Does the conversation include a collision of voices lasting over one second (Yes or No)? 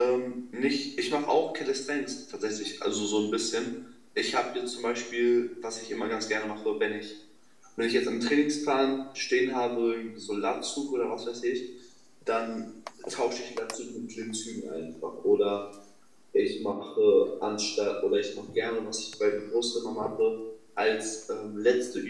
No